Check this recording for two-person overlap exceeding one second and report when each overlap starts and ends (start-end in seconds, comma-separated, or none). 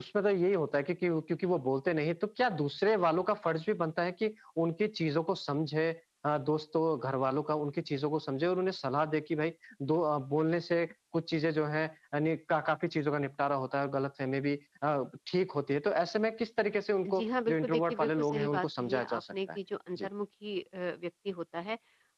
17.1-19.6